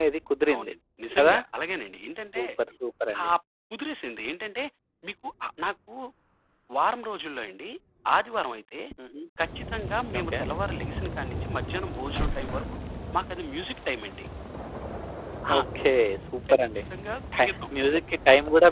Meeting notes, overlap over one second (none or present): none